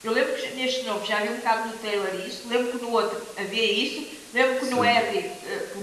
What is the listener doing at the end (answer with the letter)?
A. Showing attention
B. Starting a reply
A